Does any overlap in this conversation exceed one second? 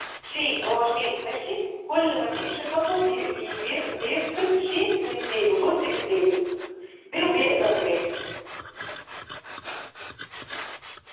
No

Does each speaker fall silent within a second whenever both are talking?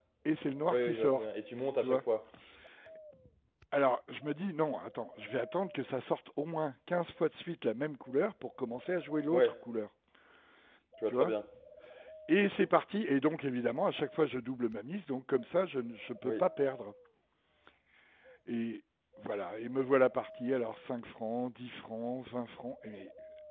Yes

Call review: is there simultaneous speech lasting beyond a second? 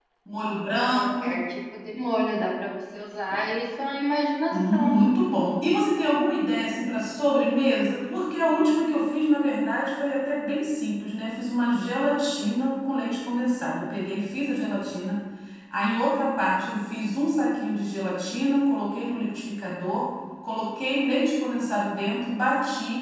No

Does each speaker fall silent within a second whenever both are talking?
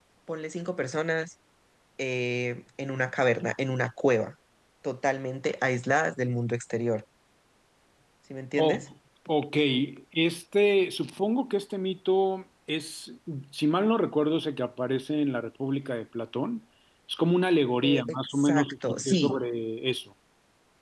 No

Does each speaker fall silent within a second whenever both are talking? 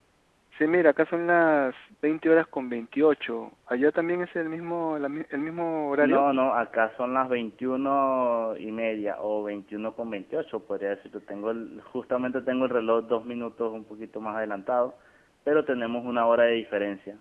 Yes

